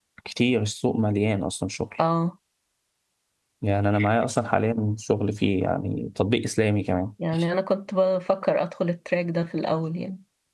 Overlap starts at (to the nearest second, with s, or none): none